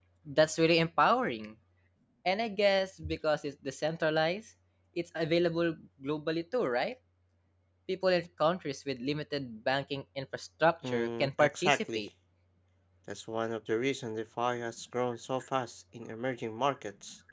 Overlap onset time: 10.8 s

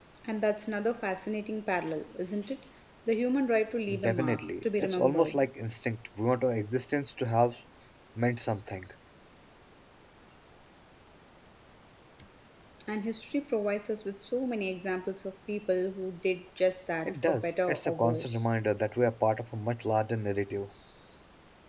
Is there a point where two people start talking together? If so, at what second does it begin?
4.0 s

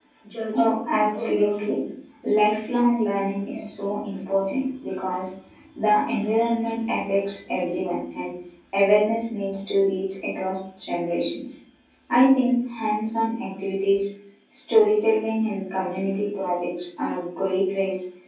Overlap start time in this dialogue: 0.5 s

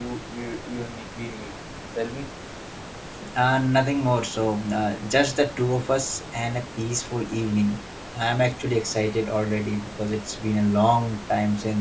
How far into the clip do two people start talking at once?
none

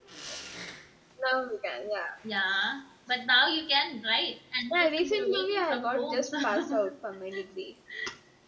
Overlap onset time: 4.7 s

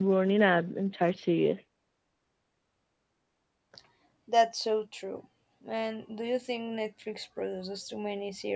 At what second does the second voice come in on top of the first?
none

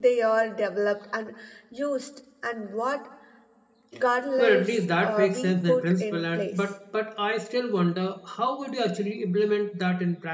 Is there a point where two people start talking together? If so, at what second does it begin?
4.4 s

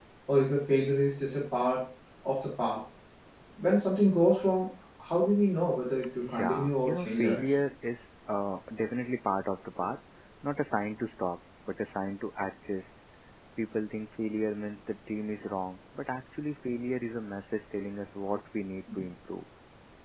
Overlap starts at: 6.2 s

